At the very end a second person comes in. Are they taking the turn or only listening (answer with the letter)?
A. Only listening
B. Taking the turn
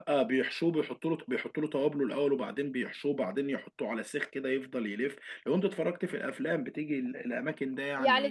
B